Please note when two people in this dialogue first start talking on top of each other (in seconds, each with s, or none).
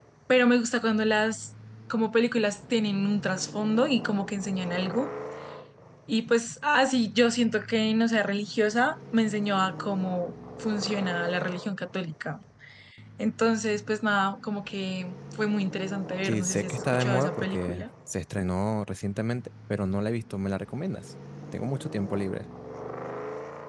16.2 s